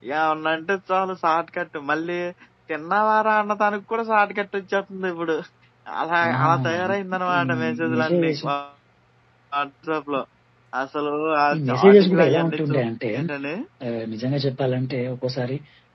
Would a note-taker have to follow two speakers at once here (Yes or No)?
Yes